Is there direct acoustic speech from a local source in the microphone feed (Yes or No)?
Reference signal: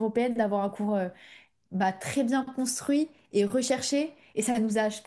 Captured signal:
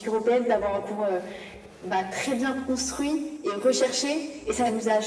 No